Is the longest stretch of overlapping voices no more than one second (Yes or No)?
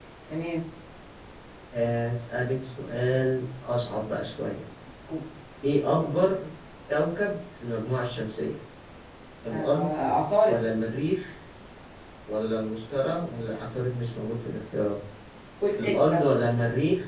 Yes